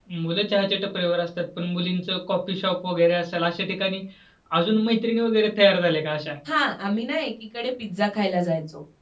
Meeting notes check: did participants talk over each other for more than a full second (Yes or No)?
No